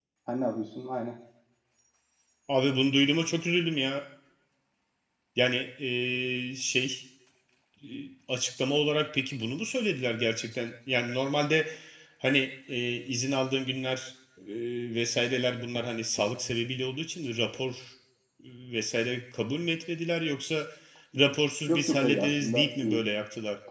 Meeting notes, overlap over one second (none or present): present